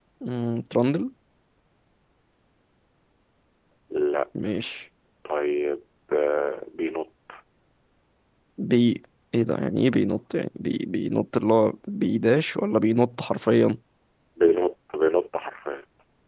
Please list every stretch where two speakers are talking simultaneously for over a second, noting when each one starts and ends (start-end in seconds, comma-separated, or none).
none